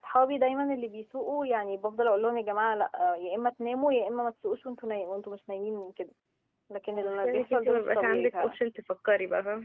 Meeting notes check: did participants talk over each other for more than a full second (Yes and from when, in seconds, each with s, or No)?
Yes, from 6.9 s